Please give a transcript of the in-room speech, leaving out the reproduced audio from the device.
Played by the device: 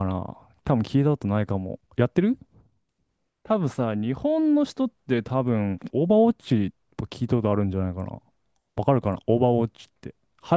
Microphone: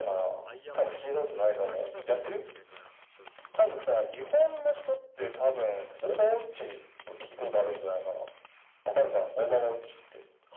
アイアンマンとか、多分ここら辺多分結構有名かな、それで言うと。

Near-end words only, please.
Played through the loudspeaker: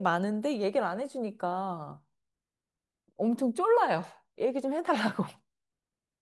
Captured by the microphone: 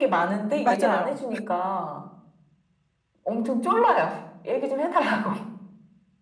맞아요.

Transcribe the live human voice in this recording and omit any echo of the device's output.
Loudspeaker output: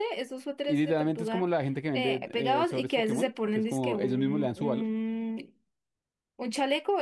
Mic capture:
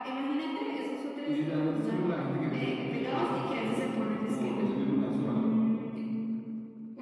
none

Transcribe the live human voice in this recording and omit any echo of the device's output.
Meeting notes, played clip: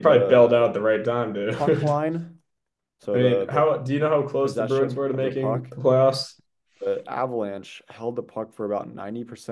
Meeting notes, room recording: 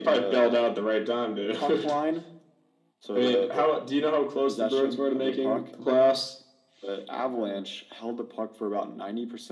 none

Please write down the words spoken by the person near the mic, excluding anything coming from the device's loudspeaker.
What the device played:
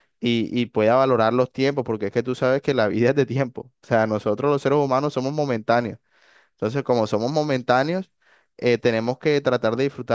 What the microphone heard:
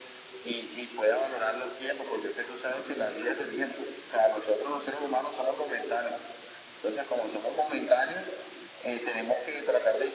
none

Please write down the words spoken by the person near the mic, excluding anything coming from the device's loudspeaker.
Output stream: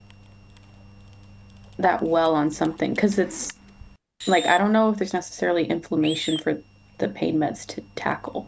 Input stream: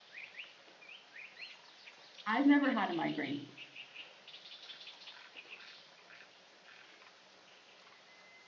I've never had a migraine.

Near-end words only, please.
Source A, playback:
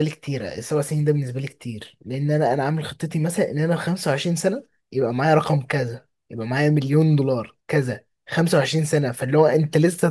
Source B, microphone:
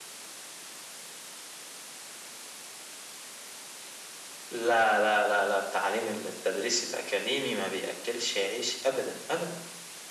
لا لا لا لا التعليم التدريس الأكاديمي ما بيأكلش عيش أبدا أبدا

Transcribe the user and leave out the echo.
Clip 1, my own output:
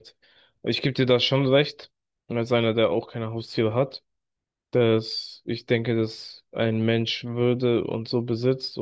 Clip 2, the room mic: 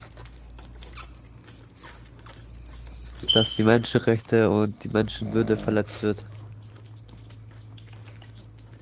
dass die Menschenrechte und die Menschenwürde verletzt wird.

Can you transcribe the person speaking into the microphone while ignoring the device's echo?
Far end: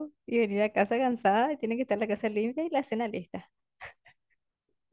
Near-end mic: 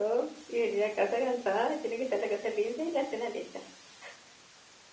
none

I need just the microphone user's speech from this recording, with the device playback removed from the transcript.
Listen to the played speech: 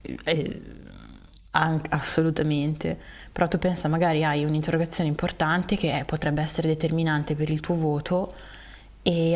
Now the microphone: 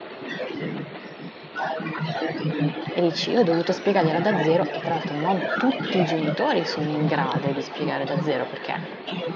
e dici io ho dovuto spiegargliela da zero e tra l'altro non tutti i genitori sono in grado di spiegare da zero perché

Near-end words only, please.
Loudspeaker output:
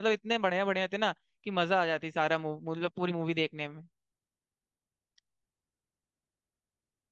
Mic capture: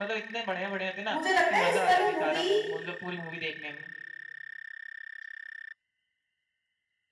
मुझे लगता है इस वाली मूवी

